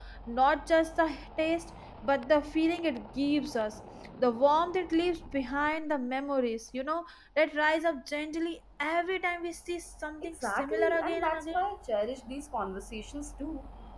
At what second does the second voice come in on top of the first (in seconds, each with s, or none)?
10.2 s